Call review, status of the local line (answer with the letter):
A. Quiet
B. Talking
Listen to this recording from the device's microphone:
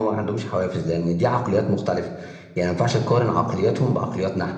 A